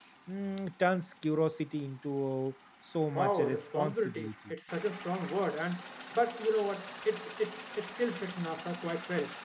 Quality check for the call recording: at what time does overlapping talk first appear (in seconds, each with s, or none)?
3.1 s